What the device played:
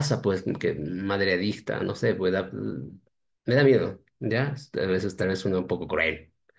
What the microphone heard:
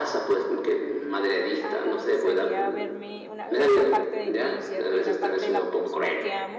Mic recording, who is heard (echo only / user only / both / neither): both